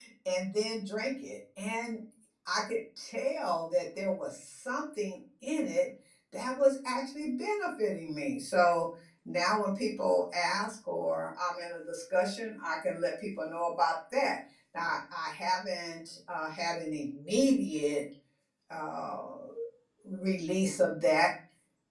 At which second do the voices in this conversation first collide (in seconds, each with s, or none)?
none